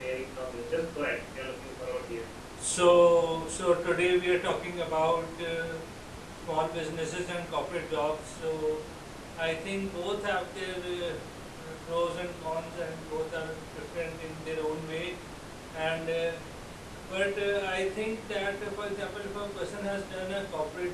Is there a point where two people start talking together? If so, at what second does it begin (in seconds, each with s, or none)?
none